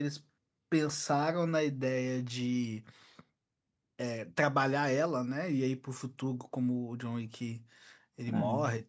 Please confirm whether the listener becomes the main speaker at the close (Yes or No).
No